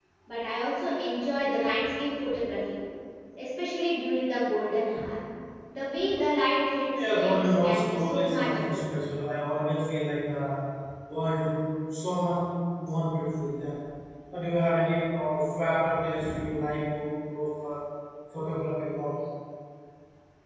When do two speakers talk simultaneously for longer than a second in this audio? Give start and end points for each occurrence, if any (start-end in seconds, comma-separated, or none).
7.2-8.8